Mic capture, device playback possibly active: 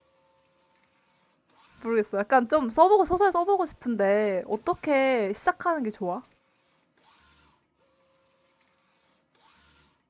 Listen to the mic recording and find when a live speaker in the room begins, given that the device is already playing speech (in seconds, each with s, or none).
1.8 s